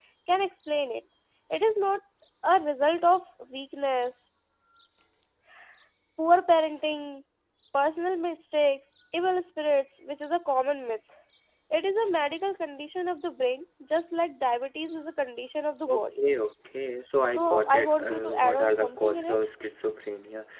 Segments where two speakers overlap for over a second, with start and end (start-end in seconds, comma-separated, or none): 17.3-19.5